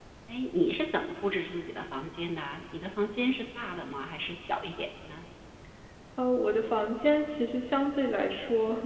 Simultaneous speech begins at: none

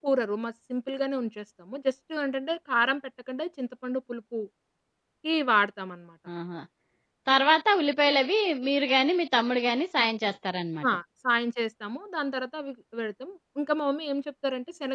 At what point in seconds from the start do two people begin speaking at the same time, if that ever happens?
none

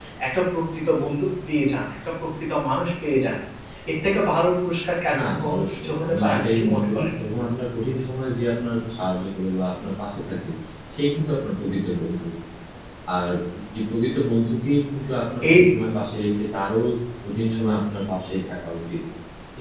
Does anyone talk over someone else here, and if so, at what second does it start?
5 s

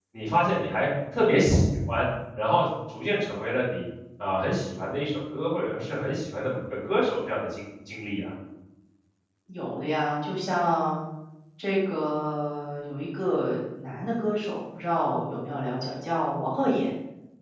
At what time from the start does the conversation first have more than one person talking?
none

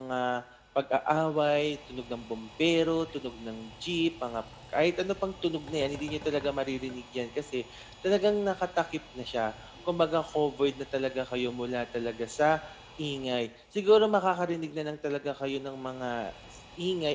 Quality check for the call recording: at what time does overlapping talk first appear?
none

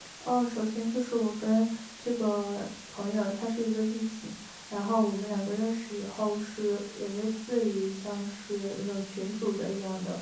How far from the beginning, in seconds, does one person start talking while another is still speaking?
none

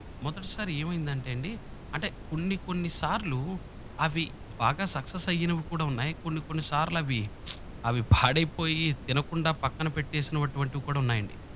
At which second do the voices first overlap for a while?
none

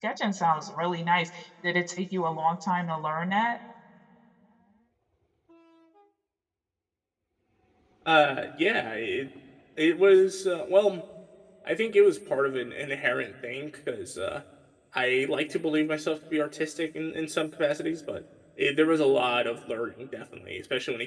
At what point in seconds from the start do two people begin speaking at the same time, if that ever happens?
none

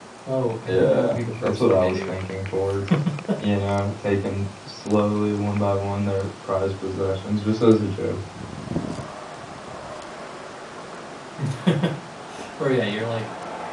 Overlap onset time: 1 s

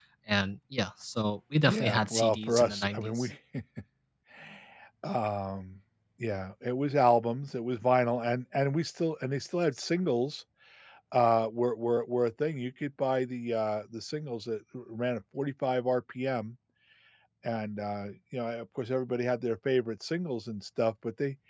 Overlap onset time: 2 s

